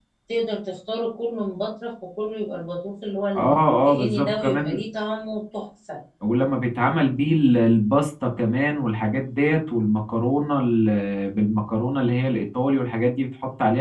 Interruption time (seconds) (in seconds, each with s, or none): 3.4 s